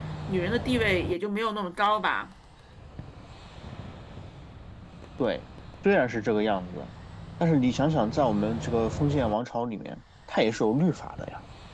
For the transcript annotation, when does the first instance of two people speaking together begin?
none

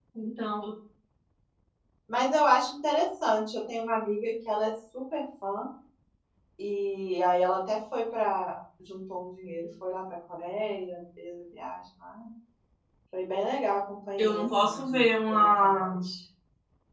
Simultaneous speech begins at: 14.2 s

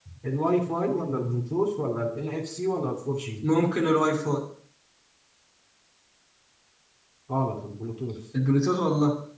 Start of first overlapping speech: none

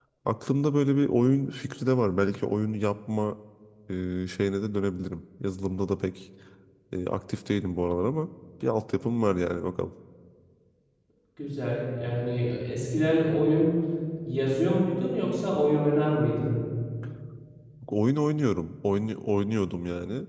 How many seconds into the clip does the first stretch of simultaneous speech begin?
none

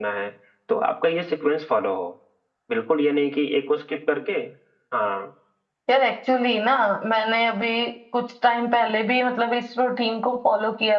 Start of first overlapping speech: none

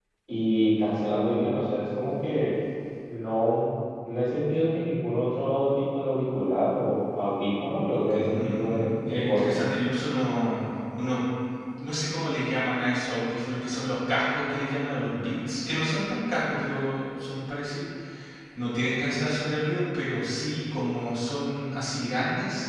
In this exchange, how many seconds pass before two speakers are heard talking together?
8.1 s

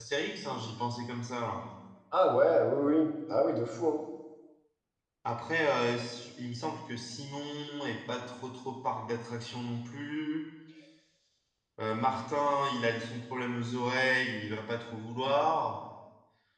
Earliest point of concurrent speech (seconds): none

